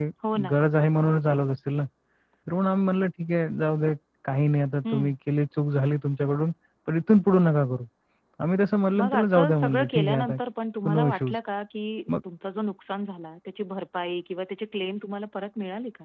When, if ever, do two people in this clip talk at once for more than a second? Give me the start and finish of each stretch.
9.0-10.4

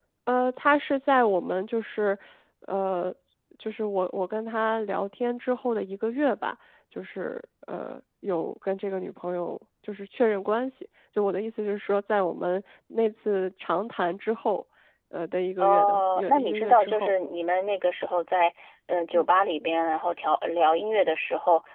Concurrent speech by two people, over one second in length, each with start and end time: 15.6-17.1

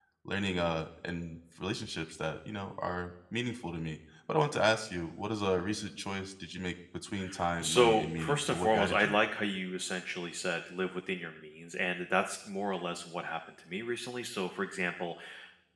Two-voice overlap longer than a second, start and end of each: 7.6-9.1

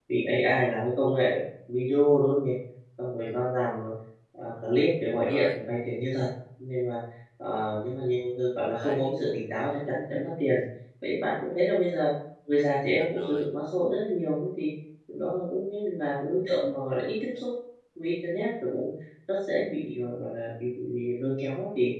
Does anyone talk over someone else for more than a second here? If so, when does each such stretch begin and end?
none

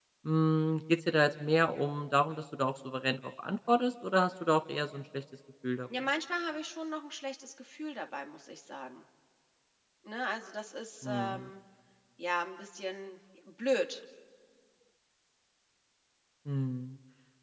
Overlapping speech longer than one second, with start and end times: none

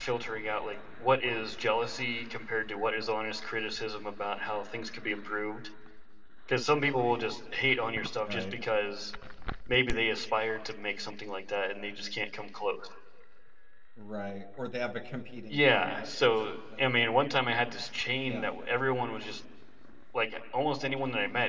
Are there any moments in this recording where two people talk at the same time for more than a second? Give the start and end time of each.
15.5-17.0

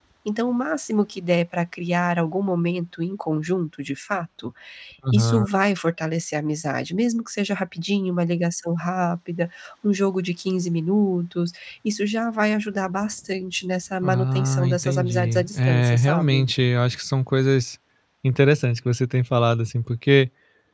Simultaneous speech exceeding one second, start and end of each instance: 14.0-16.4

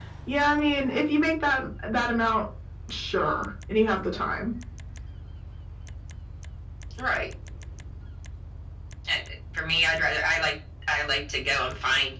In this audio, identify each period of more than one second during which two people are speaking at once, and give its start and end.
none

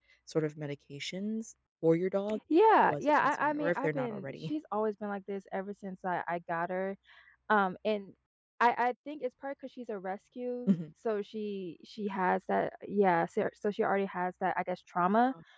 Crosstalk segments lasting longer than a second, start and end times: 2.7-4.5

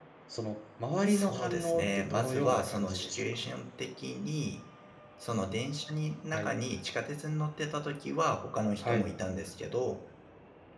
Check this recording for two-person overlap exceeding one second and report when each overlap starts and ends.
1.1-3.5

